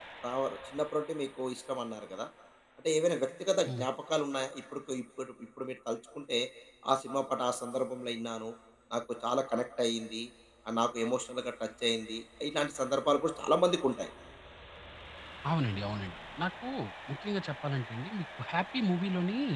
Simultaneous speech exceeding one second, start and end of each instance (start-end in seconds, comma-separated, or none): none